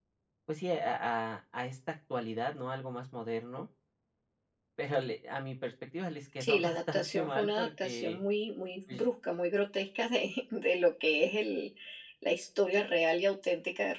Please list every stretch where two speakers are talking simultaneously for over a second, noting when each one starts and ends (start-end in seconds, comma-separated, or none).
6.4-8.2